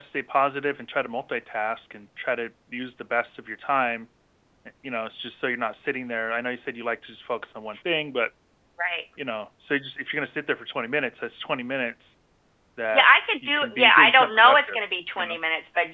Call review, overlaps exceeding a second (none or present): present